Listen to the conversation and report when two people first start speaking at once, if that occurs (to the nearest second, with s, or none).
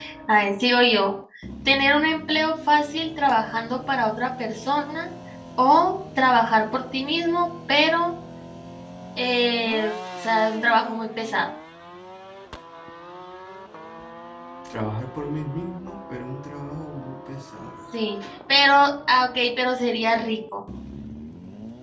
none